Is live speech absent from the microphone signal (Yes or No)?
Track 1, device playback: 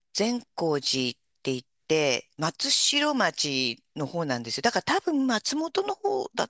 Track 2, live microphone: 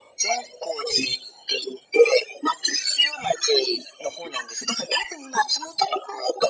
Yes